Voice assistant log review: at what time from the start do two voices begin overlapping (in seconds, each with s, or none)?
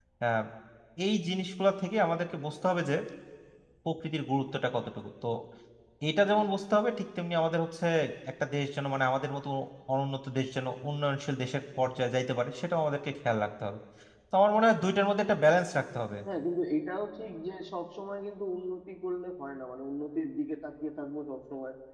none